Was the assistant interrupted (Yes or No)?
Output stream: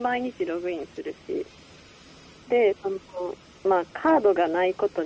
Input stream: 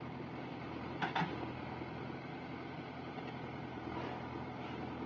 No